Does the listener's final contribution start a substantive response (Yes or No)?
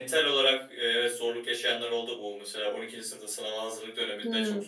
No